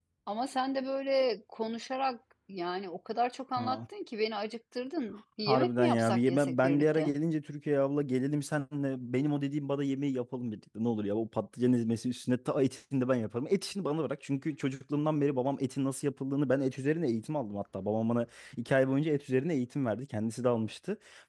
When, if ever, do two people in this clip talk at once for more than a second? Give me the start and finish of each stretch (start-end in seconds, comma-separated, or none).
5.5-7.1